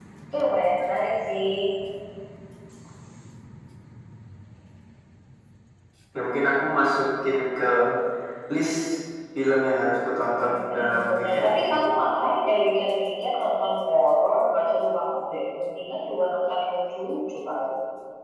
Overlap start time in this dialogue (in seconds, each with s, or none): 10.5 s